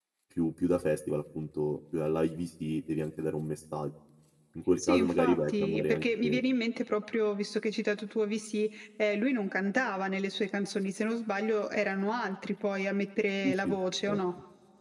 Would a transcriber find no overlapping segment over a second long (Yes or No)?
No